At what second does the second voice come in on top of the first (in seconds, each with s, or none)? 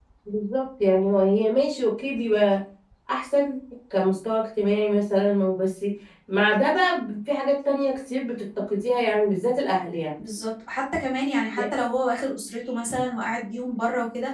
none